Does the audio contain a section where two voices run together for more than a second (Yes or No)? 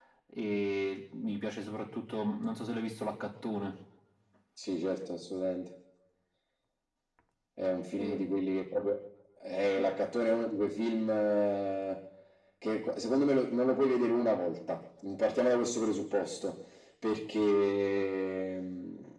No